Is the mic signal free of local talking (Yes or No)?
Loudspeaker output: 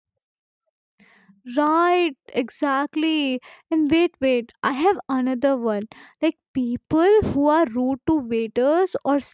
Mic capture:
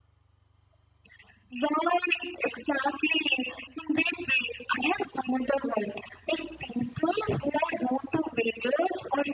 Yes